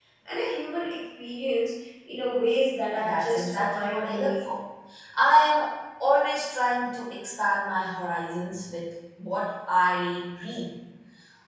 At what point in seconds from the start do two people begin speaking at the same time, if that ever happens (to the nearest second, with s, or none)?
3 s